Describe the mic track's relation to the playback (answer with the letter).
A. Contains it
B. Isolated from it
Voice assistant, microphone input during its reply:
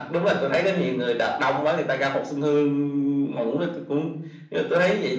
A